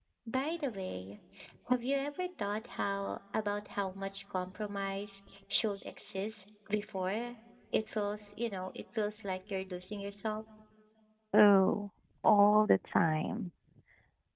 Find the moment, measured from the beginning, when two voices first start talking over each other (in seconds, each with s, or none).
none